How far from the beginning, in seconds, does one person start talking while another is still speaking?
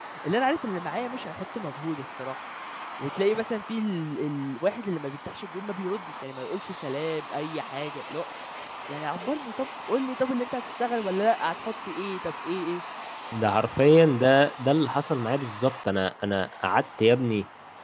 none

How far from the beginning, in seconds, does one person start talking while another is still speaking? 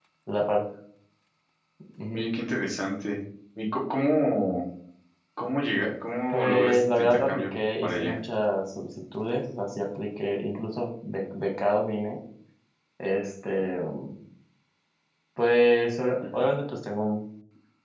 6 s

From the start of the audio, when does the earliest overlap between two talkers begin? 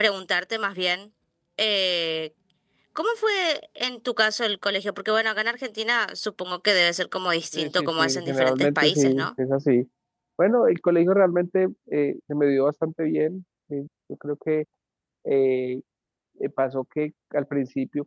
8 s

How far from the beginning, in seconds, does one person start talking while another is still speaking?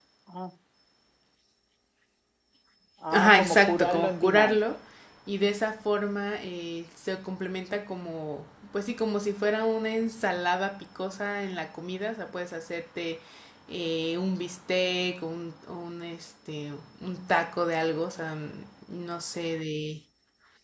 3 s

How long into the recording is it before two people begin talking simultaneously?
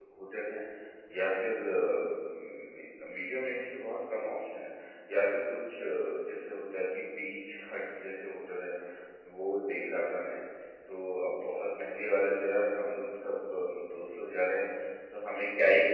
none

